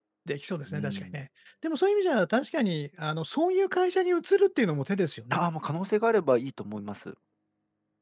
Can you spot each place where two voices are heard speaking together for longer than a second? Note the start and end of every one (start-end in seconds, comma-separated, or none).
none